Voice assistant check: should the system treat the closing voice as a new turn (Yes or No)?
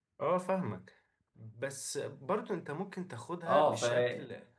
No